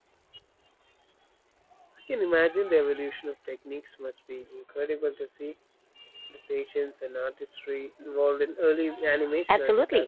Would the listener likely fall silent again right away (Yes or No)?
No